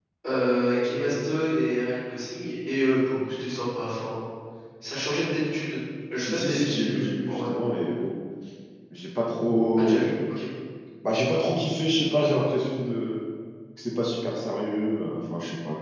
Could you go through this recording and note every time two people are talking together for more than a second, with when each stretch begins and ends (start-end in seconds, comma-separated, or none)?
6.2-7.5